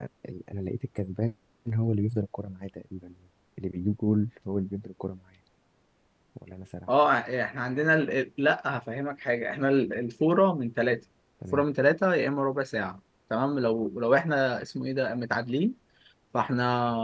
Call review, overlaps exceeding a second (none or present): none